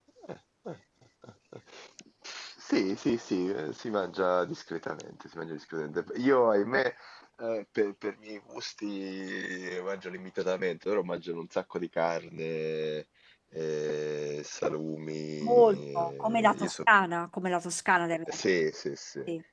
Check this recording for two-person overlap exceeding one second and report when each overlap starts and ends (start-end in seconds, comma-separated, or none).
15.4-16.8